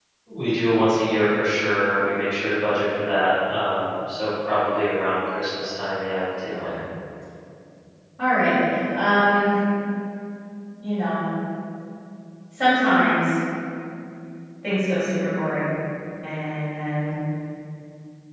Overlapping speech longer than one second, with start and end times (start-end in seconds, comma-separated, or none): none